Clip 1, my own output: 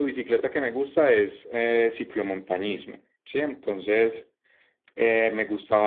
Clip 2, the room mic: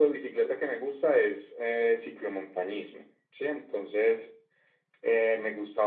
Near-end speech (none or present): none